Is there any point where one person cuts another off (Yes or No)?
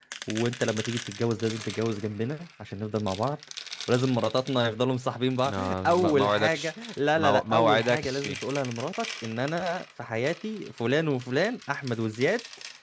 Yes